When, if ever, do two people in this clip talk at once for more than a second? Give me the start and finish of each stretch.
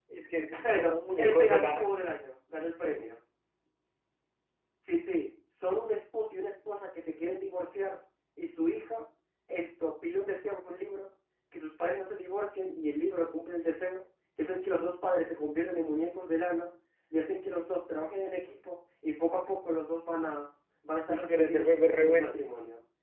0.6-1.9, 21.1-22.4

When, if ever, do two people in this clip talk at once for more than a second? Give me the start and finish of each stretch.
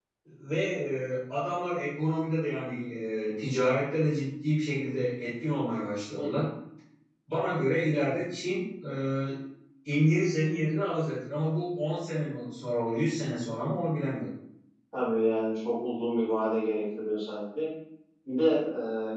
none

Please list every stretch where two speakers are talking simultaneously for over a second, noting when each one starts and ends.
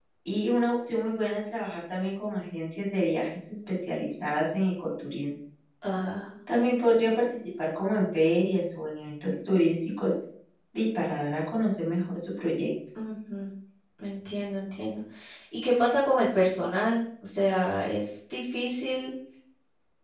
none

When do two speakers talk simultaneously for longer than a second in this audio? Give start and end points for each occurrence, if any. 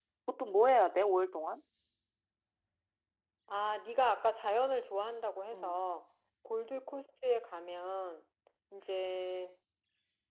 none

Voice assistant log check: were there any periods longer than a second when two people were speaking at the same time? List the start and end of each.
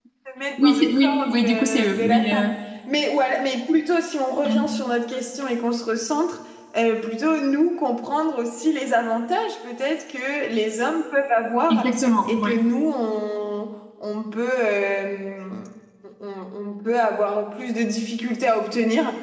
0.6-2.5

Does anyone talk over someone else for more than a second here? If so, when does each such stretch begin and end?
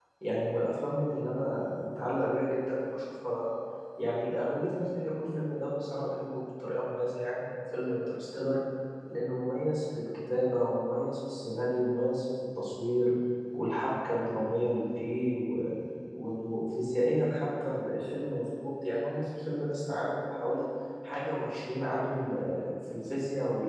none

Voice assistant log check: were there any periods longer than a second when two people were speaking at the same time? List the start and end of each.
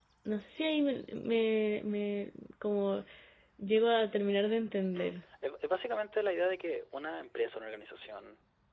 none

